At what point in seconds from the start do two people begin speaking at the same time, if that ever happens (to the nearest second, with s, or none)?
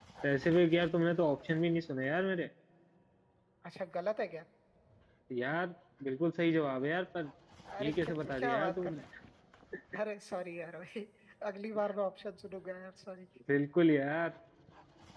8 s